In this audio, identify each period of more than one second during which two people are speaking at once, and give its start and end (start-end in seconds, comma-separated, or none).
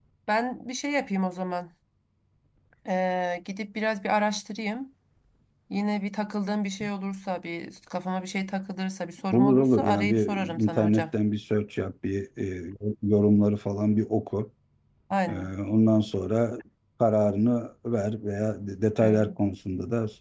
9.3-11.1